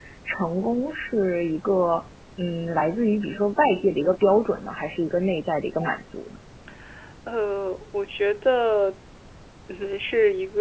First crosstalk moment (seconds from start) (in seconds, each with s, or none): none